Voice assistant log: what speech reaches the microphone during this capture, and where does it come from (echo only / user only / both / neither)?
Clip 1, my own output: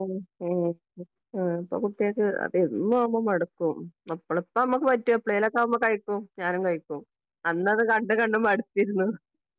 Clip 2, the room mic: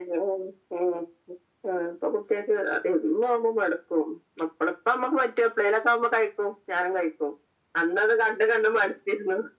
echo only